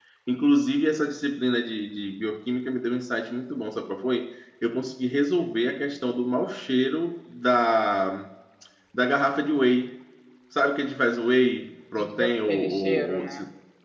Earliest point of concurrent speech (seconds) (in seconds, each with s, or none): 12.0 s